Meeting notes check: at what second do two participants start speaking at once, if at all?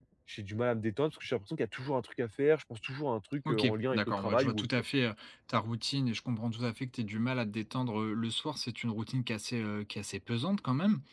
3.5 s

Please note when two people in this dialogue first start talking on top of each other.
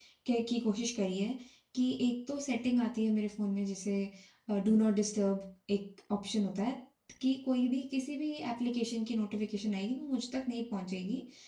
none

